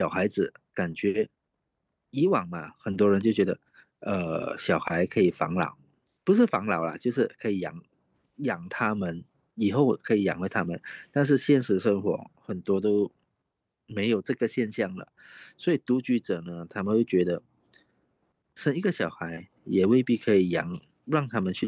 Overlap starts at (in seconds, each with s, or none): none